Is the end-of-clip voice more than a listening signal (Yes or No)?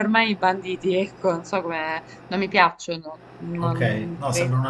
Yes